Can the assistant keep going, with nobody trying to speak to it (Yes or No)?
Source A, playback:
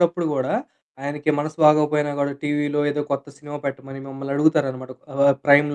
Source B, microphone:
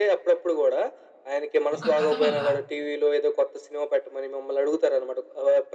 No